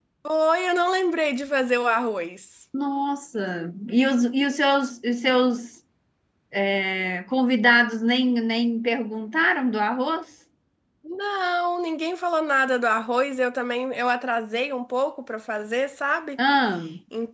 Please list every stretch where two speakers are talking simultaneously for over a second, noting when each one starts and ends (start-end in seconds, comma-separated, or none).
none